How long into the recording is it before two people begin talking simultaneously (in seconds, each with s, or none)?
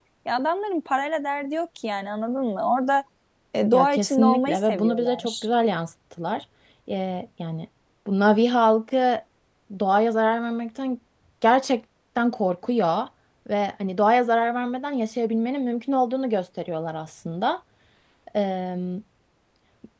3.7 s